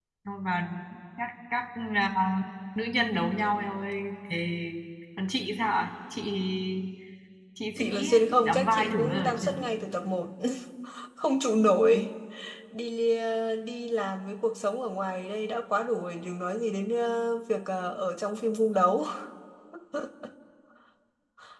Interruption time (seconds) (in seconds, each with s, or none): 7.8 s